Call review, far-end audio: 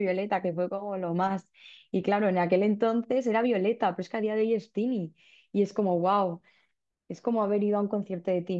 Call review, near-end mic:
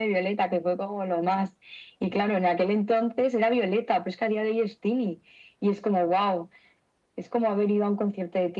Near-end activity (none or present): none